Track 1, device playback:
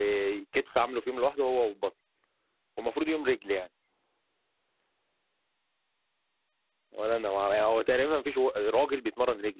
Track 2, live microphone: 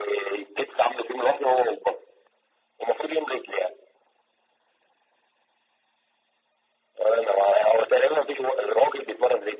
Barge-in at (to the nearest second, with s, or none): none